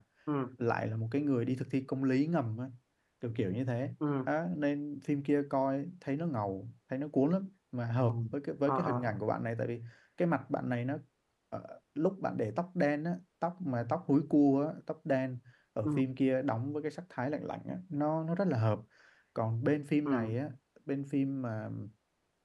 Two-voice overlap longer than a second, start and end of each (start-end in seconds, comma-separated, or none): none